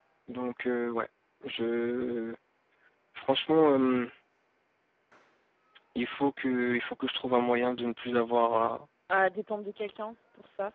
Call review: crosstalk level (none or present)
none